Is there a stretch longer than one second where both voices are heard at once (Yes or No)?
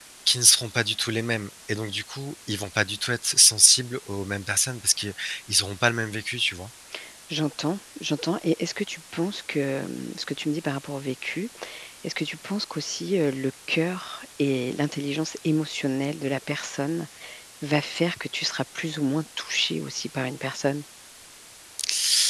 No